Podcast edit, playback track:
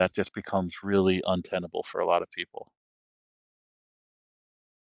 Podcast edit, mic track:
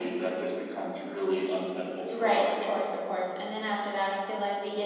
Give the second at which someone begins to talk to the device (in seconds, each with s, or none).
2.1 s